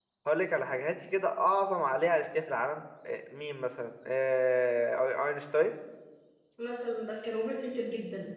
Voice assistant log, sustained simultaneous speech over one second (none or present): none